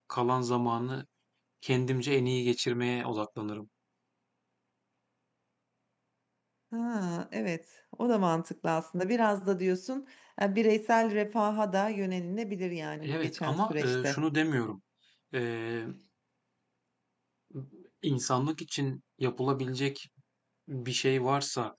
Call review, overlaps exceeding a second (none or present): present